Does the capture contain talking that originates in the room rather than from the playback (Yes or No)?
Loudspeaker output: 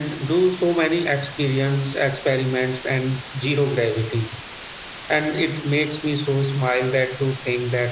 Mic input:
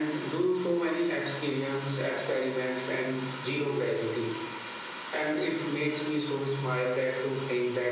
No